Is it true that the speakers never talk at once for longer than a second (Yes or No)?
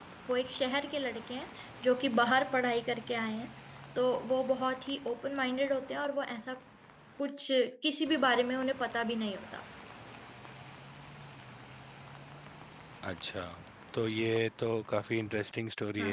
Yes